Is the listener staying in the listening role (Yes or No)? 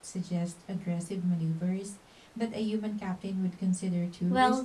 No